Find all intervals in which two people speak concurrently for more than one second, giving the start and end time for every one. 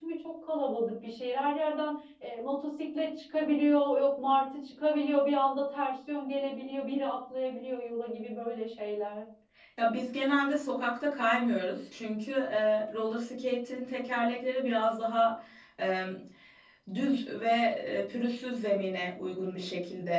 none

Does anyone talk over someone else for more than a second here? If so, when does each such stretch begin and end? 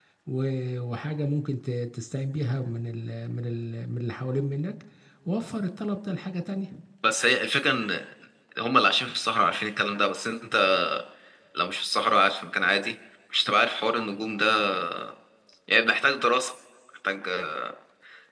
none

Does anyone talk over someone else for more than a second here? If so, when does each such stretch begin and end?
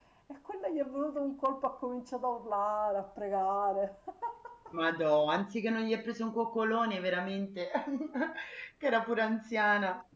none

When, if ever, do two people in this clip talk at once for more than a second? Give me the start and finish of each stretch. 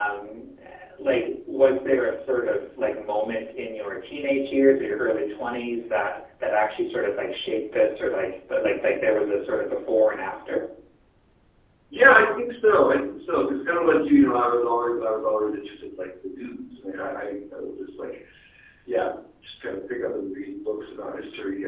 none

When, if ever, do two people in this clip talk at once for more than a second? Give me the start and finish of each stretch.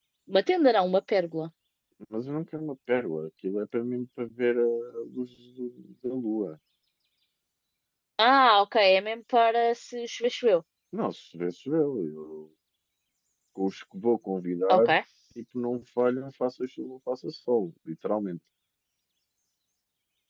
none

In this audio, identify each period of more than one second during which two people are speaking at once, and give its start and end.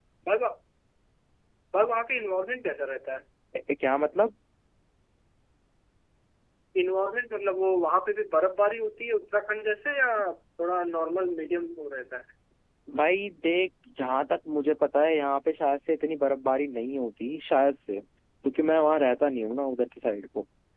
none

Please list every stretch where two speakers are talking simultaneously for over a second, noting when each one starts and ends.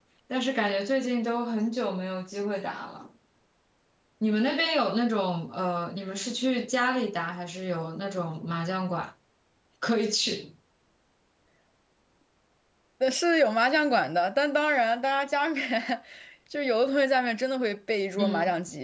none

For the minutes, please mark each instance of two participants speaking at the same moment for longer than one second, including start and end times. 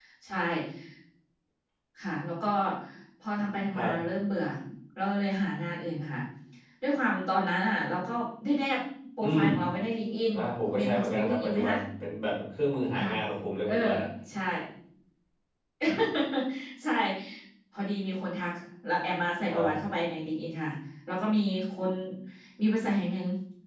10.3-11.8

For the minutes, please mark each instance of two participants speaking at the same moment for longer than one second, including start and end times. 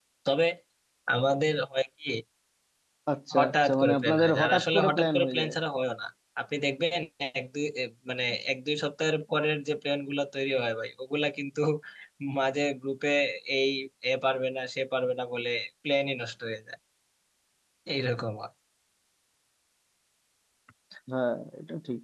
3.4-5.5

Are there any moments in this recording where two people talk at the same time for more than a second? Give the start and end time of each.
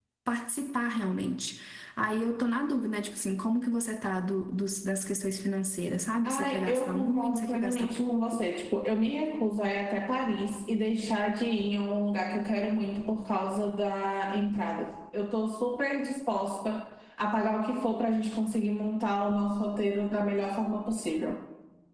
6.2-8.4

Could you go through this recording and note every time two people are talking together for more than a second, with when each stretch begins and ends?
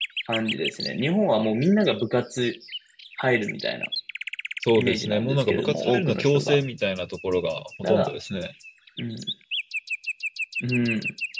4.8-6.6

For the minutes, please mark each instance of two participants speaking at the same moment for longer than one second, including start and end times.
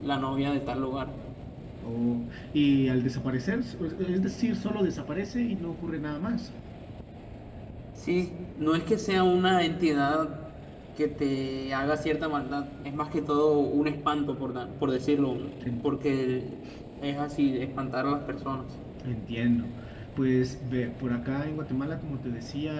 none

